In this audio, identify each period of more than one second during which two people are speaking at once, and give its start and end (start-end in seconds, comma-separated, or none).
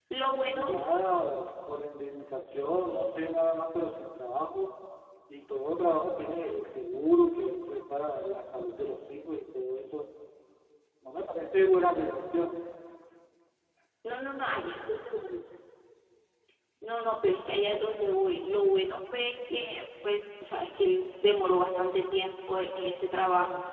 none